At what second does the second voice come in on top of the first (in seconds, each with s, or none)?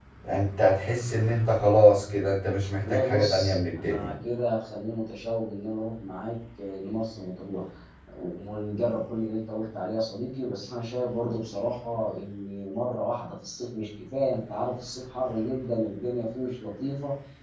2.8 s